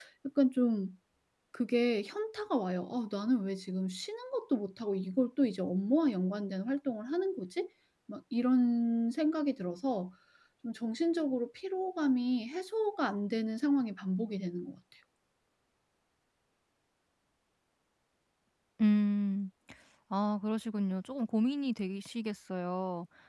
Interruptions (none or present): none